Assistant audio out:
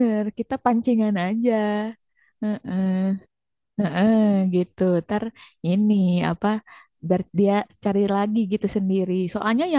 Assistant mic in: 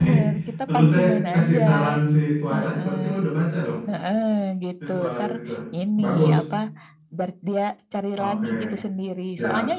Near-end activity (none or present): present